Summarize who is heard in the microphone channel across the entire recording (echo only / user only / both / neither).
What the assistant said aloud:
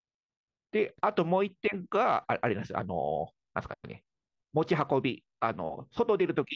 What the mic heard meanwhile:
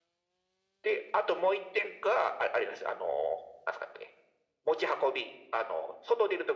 echo only